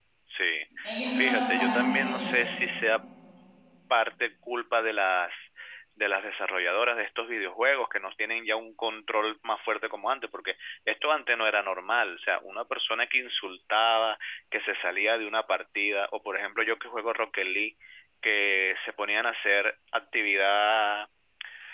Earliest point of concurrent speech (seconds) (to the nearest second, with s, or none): 1 s